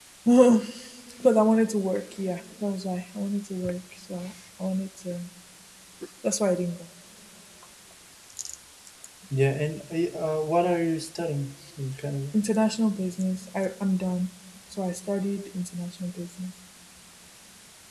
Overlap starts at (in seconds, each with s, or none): none